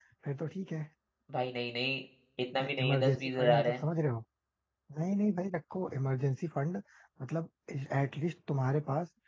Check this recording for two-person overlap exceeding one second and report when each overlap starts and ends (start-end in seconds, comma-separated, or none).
2.6-3.8